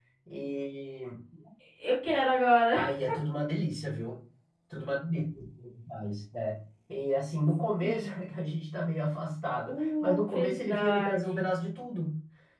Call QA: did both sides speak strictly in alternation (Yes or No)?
No